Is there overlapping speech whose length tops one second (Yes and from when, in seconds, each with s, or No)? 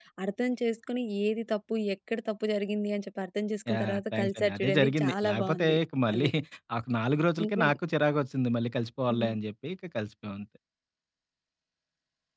Yes, from 3.7 s